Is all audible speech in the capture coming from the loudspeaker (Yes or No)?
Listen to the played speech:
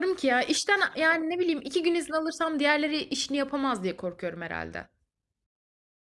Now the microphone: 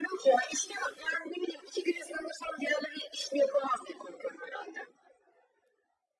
Yes